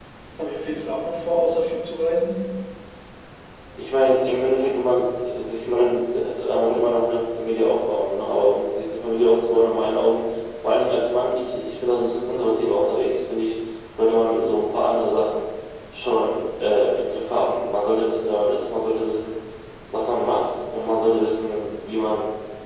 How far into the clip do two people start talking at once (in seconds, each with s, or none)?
none